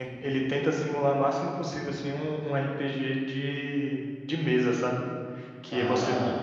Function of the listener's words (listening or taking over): listening